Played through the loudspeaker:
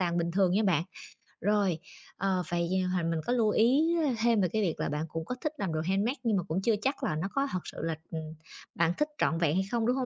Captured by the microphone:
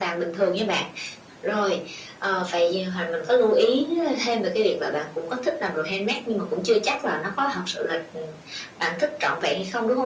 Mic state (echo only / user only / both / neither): echo only